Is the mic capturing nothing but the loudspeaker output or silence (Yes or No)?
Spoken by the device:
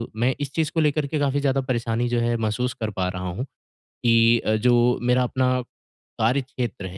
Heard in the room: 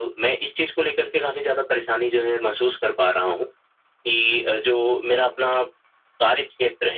No